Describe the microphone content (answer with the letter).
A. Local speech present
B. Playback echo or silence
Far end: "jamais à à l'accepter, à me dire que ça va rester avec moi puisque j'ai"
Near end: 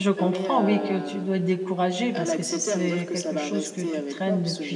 A